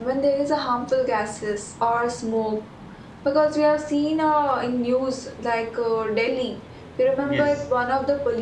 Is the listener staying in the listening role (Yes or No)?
Yes